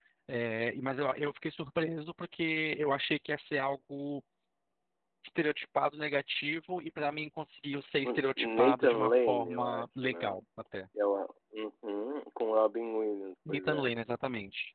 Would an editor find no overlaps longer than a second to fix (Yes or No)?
No